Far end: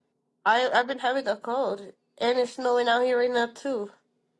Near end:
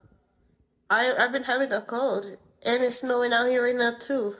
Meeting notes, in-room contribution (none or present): none